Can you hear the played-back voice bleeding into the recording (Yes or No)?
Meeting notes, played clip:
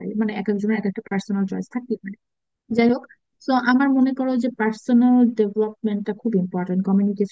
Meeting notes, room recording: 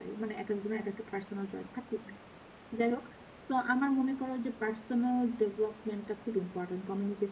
Yes